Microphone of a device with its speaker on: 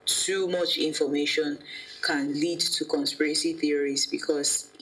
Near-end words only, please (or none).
none